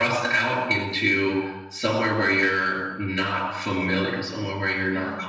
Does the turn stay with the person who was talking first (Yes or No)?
Yes